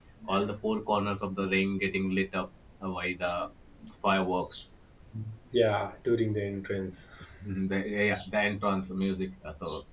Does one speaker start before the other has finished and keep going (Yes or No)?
No